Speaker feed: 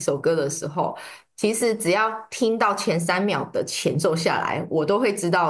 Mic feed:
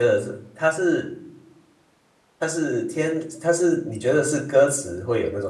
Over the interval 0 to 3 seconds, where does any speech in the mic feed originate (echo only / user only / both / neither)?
user only